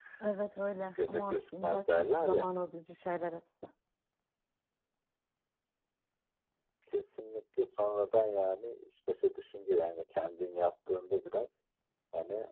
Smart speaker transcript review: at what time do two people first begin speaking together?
0.8 s

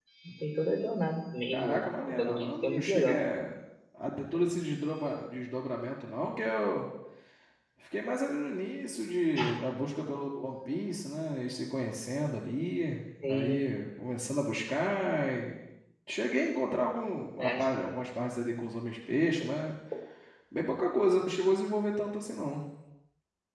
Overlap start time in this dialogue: 1.5 s

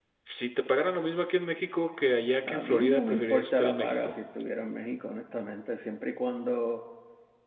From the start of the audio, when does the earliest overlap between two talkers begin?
2.5 s

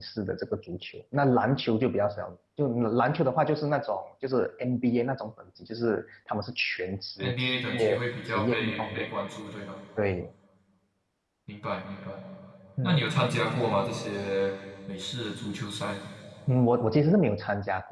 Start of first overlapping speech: 7.2 s

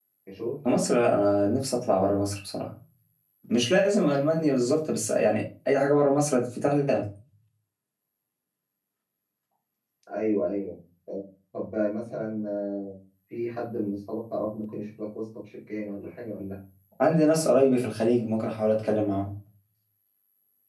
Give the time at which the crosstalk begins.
none

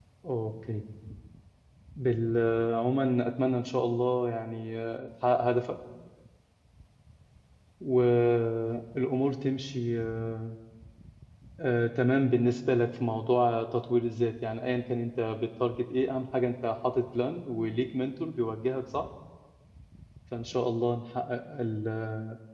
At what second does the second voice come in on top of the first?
none

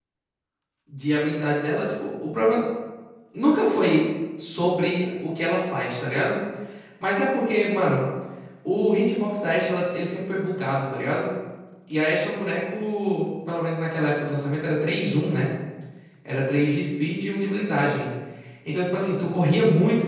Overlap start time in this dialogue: none

